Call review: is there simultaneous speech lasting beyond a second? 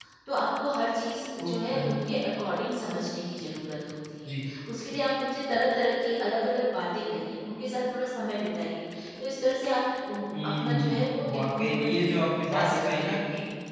Yes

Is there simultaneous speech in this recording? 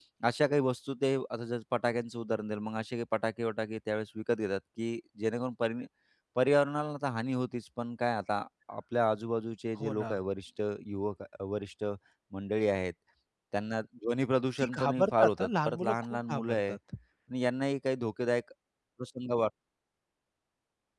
Yes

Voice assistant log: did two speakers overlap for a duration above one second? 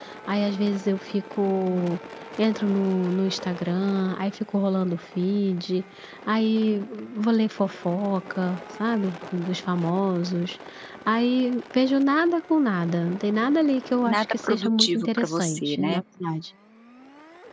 Yes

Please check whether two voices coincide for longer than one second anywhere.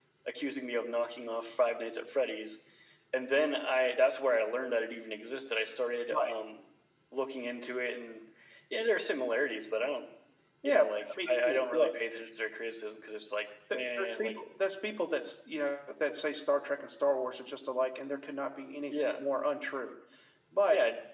Yes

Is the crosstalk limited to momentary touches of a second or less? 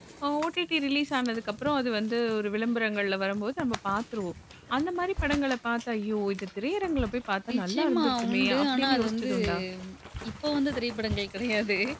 No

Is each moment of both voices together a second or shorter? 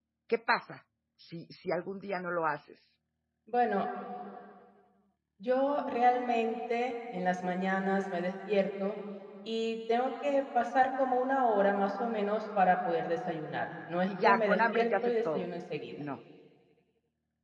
No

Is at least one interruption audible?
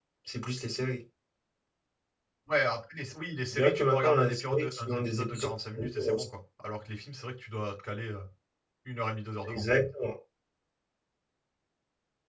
Yes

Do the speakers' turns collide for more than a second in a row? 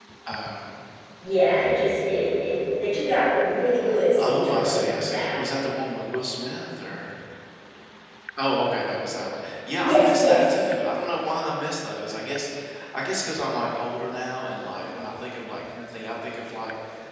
Yes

